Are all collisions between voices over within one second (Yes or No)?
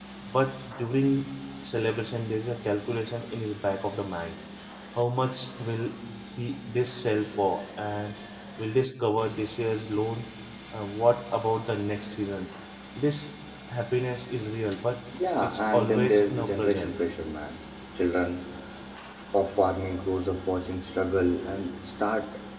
No